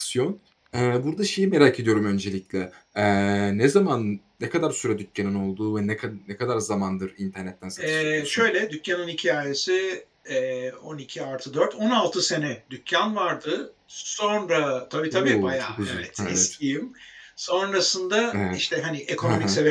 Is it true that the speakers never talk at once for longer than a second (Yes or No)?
No